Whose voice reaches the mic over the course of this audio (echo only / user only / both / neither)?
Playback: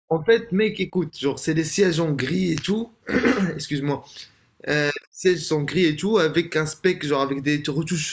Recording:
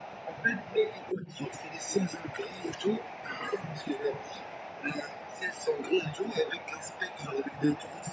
echo only